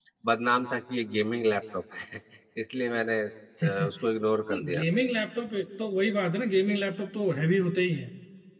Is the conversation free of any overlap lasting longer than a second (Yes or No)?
Yes